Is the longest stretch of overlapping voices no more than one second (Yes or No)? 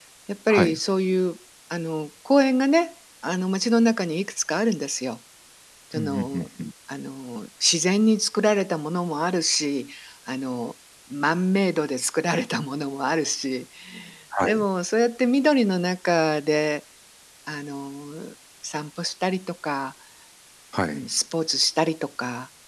Yes